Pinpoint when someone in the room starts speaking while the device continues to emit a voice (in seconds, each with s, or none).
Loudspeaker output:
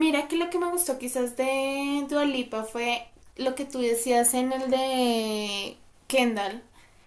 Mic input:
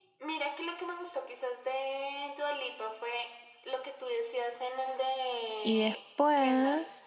5.6 s